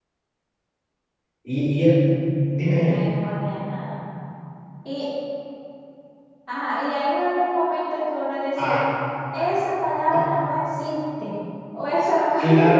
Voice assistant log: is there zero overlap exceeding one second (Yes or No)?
Yes